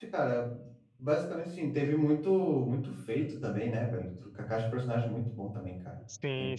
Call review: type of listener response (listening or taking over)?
taking over